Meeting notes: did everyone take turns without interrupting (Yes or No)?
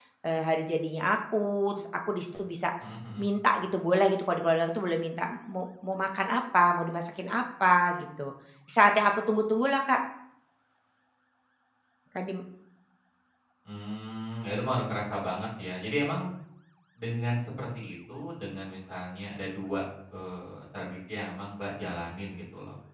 Yes